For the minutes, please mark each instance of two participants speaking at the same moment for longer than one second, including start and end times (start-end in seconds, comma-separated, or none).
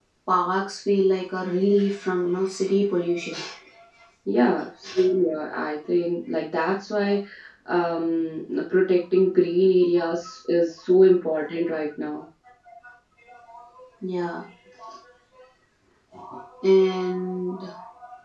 none